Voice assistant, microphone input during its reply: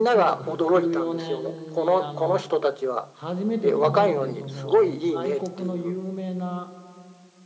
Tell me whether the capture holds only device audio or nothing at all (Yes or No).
No